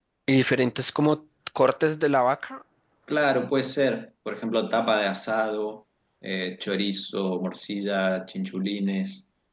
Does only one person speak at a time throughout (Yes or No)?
Yes